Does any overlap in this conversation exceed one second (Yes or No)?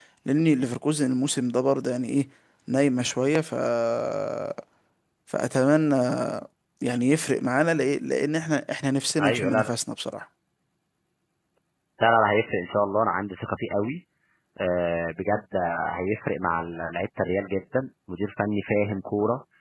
No